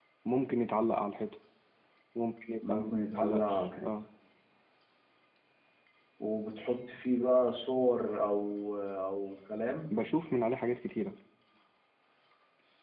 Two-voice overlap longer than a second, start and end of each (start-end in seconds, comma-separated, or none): 2.7-3.9